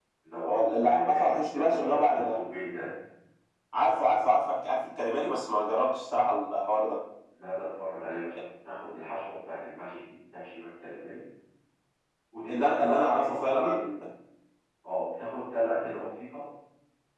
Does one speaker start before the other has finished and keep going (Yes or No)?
Yes